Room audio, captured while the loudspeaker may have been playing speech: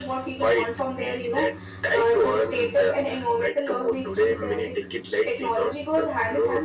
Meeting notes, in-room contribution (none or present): none